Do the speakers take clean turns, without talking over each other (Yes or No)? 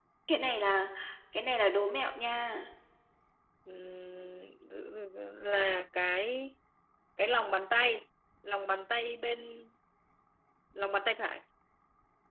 Yes